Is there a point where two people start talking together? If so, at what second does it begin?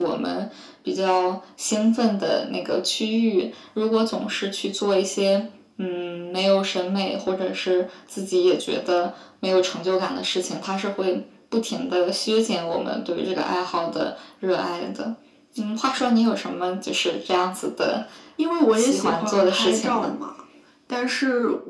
18.7 s

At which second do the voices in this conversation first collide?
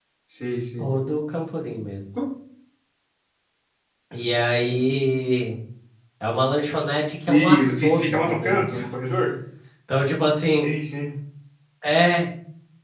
7.1 s

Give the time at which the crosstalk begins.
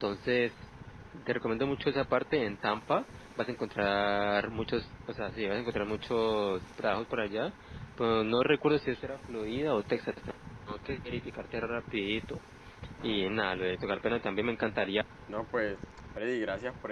none

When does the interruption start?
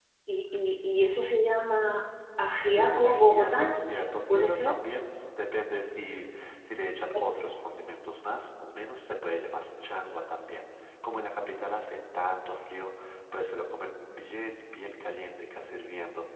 2.7 s

